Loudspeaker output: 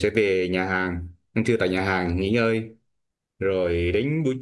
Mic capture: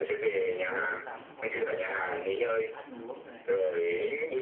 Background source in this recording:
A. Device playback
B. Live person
B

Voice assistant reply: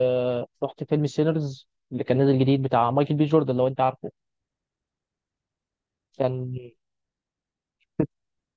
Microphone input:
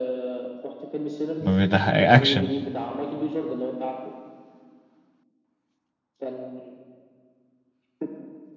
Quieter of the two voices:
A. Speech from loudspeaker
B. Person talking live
A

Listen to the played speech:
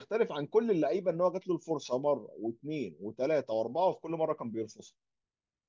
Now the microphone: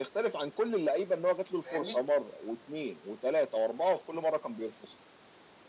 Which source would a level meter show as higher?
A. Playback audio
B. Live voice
A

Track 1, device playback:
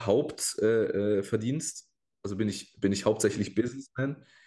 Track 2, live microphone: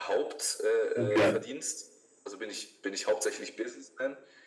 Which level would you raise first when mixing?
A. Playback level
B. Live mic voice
A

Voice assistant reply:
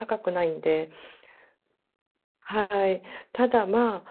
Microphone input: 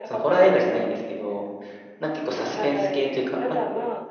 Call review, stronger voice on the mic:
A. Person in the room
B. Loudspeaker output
A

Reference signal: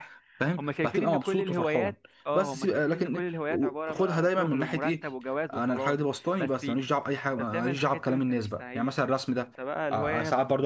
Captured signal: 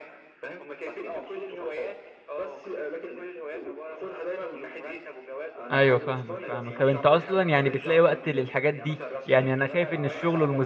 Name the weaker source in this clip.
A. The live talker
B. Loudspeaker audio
B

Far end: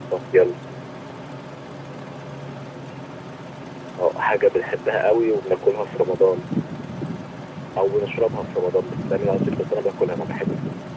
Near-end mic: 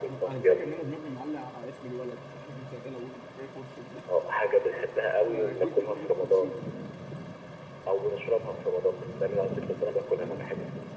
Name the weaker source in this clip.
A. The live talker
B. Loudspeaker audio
A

